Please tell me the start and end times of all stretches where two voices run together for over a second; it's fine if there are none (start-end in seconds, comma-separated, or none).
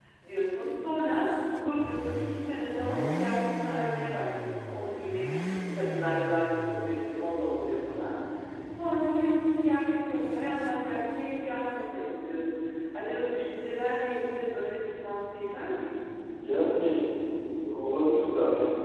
none